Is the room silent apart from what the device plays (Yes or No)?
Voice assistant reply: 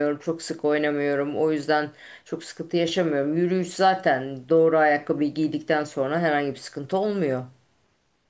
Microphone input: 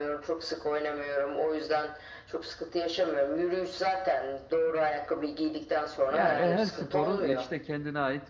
No